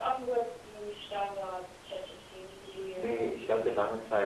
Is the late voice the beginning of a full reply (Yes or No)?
Yes